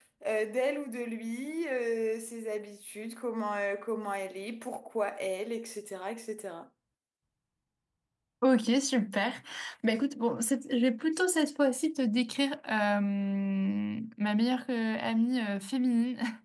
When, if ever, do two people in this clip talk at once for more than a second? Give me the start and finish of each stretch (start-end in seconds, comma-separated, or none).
none